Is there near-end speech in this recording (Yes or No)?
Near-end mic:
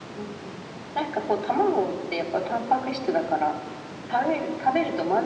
No